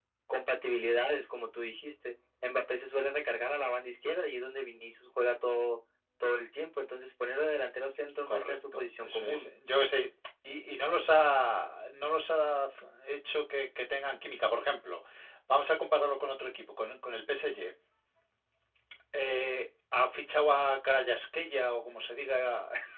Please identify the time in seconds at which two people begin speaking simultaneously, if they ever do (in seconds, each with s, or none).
8.3 s